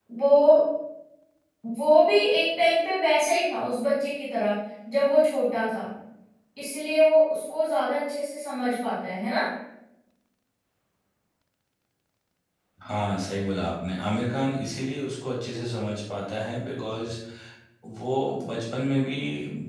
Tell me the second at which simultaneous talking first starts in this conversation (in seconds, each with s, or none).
none